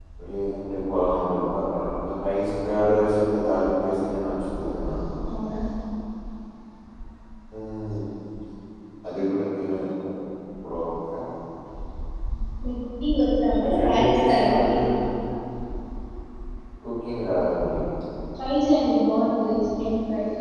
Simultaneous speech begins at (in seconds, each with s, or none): 13.6 s